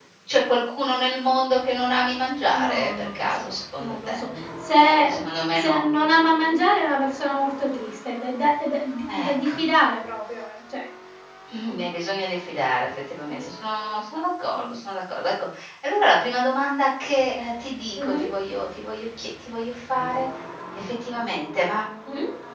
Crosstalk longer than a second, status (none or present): present